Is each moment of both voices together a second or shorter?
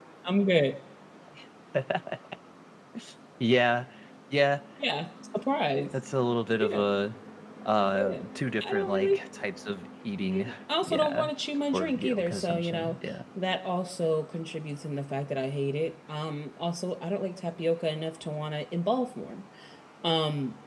No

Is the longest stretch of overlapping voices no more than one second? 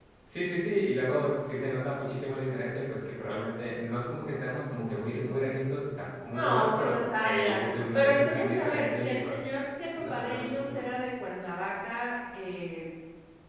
No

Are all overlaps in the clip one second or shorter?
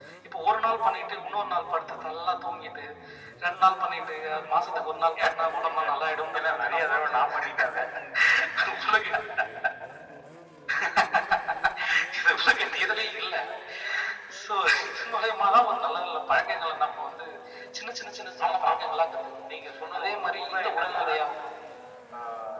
No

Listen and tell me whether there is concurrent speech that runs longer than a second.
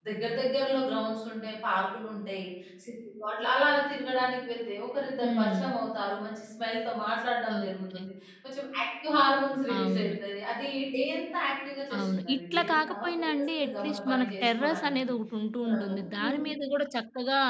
Yes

